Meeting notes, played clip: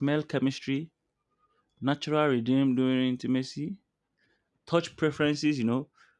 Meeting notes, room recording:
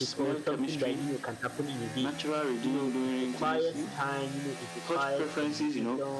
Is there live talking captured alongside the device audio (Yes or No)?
Yes